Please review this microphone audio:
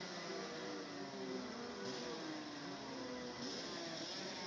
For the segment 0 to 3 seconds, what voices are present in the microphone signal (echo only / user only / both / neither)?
neither